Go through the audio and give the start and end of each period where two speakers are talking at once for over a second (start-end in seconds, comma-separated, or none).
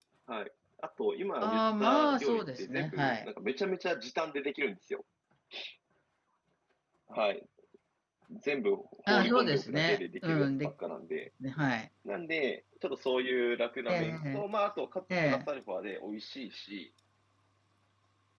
1.4-3.3, 9.1-10.7